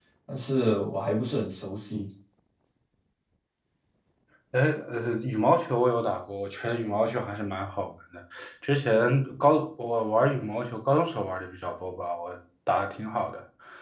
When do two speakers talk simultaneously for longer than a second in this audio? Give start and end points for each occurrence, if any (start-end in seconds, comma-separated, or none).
none